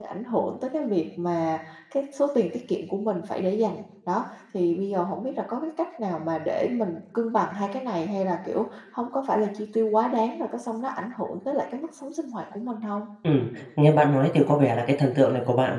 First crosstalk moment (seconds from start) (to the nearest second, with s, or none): none